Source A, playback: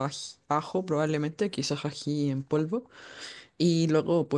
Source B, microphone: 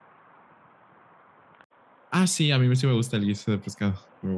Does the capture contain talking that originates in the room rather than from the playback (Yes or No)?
Yes